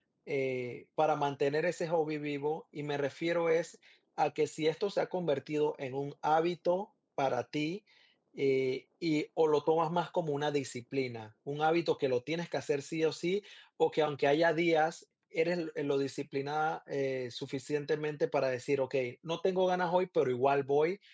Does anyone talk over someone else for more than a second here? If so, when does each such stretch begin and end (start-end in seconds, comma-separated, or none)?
none